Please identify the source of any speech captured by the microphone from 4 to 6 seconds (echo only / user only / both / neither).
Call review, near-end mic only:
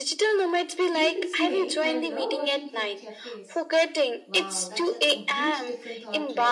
both